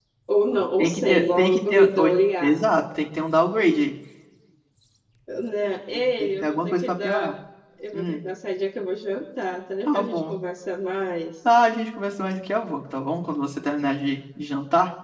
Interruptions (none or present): present